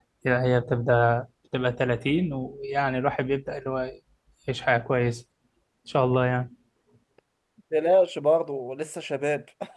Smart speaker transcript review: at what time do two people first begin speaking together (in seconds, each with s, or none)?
none